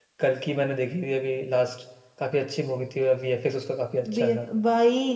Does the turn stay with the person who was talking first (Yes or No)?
No